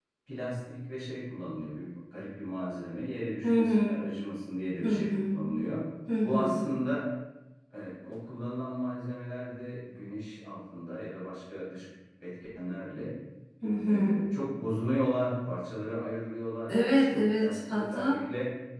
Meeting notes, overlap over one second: present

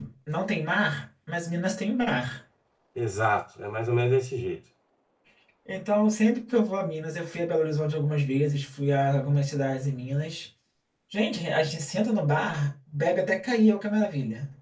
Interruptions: none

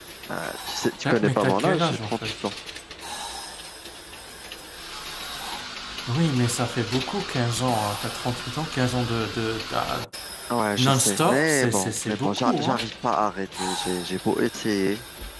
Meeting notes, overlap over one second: present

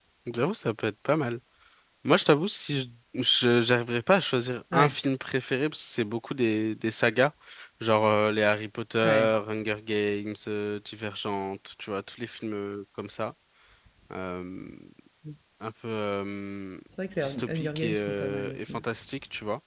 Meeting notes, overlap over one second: present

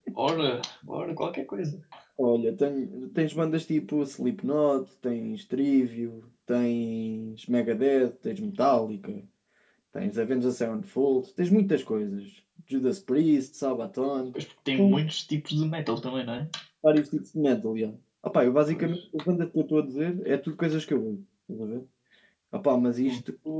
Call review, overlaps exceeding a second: none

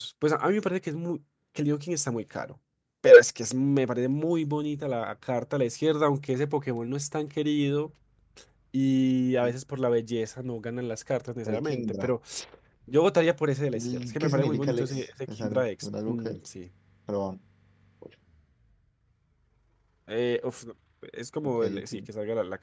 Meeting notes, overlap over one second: present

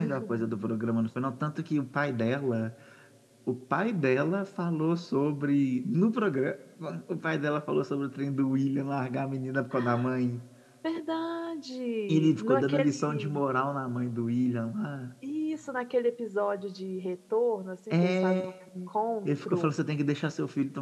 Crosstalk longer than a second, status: present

